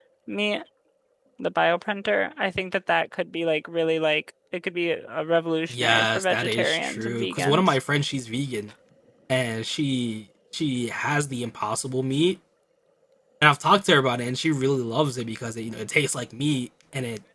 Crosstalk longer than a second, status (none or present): present